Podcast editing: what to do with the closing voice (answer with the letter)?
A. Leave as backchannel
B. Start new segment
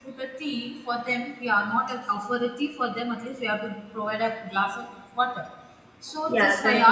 A